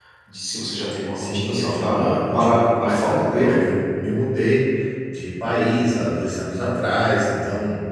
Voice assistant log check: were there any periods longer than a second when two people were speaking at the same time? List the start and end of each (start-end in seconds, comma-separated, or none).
1.2-3.6